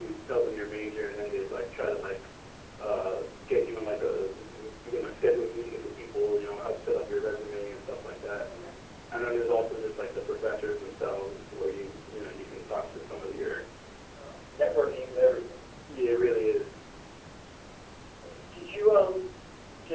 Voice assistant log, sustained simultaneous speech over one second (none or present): none